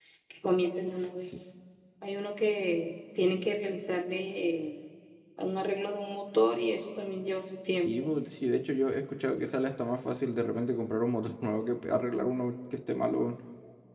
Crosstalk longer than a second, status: none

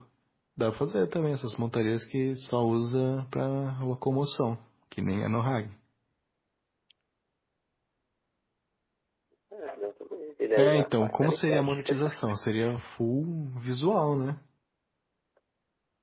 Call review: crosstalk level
present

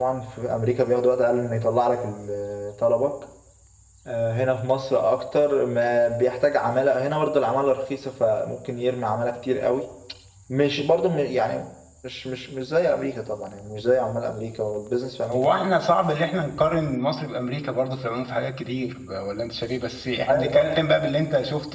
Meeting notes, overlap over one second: none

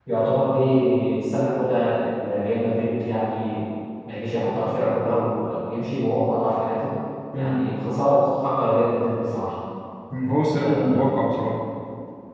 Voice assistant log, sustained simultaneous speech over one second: none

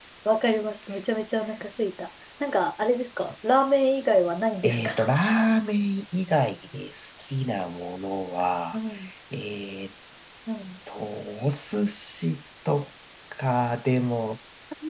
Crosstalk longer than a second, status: none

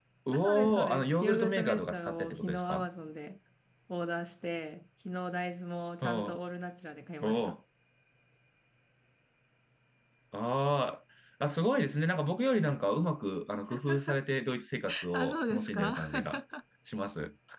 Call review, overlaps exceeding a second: present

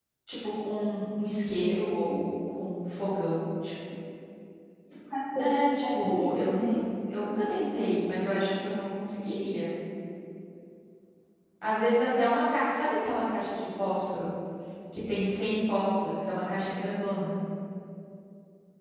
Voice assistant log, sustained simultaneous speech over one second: present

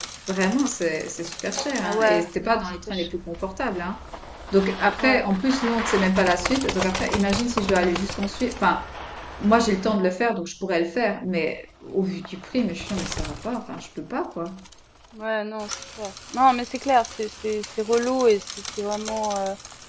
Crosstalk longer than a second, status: present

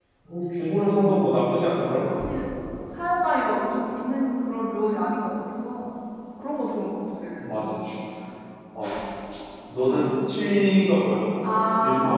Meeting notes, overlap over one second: none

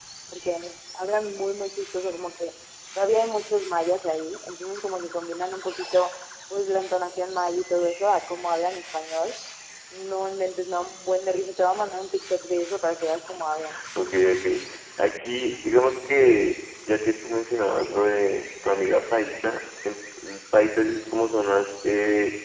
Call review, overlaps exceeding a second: none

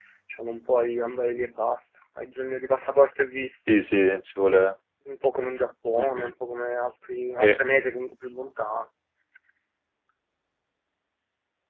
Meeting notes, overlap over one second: none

